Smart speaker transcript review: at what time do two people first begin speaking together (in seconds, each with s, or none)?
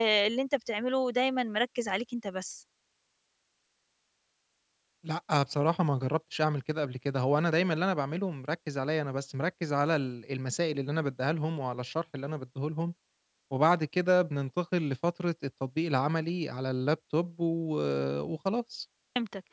none